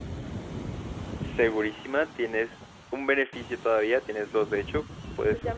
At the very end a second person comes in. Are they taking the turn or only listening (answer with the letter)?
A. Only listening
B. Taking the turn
B